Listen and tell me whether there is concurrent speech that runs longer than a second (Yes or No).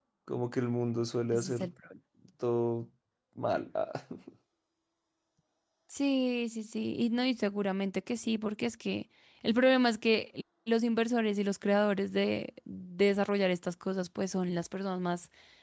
No